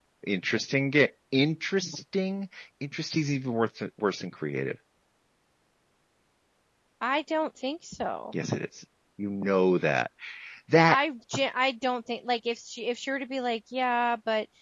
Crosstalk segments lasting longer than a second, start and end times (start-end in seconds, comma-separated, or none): none